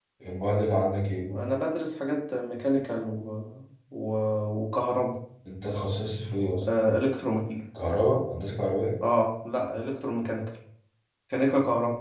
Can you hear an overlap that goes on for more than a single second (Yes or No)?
No